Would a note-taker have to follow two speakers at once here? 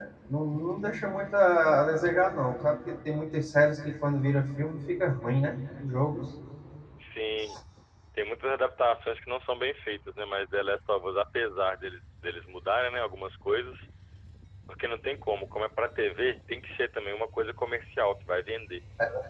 No

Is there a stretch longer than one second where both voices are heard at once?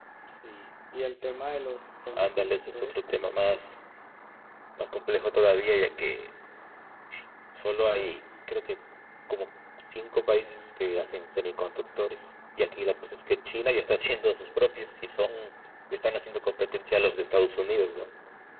Yes, from 2.1 s

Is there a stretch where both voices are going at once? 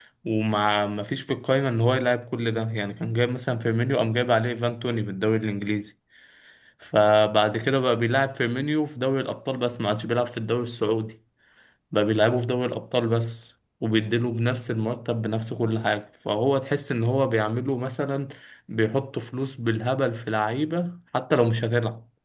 No

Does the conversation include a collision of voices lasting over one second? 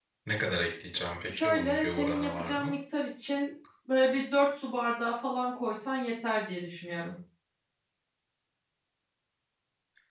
Yes, from 1.3 s

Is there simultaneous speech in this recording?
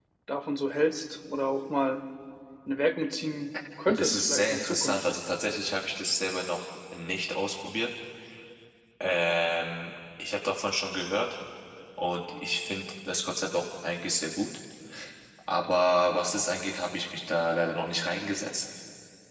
Yes, from 3.9 s

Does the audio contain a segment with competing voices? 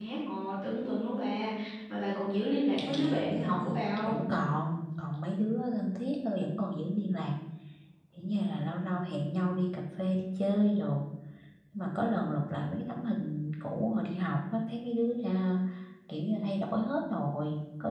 Yes, from 2.8 s

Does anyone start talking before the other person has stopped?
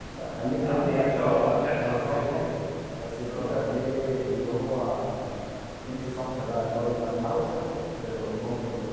Yes, from 0.6 s

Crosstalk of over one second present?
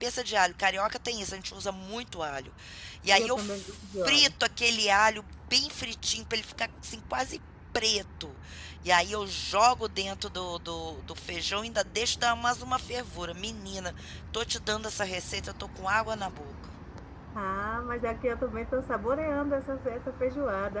Yes, from 3.1 s

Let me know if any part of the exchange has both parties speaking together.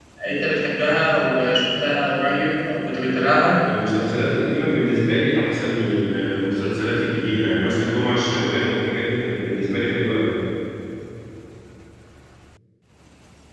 No

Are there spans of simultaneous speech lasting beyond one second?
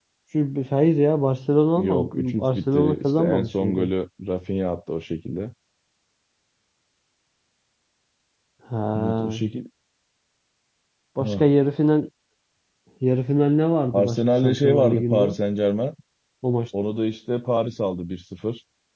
Yes, from 1.8 s

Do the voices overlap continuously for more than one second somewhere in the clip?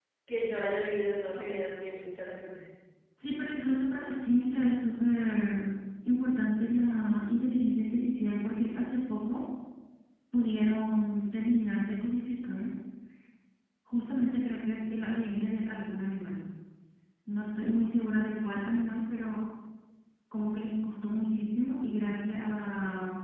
No

